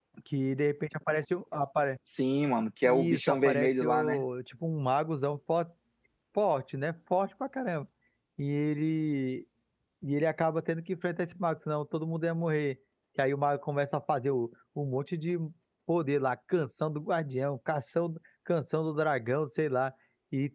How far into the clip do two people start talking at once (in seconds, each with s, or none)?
2.8 s